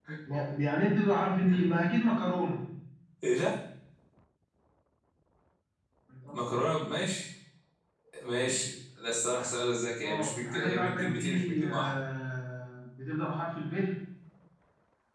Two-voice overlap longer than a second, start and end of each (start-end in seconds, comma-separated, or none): 10.0-11.9